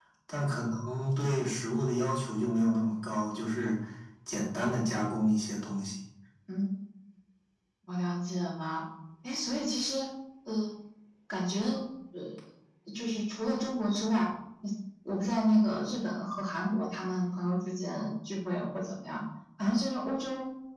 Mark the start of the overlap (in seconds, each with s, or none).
none